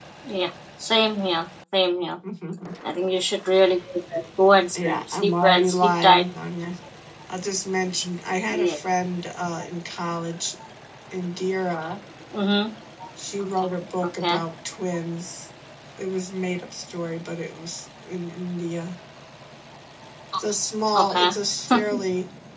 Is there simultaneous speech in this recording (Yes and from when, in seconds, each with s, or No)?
Yes, from 4.8 s